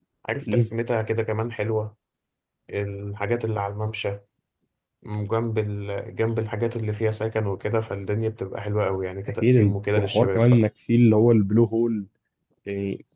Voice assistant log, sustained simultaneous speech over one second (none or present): present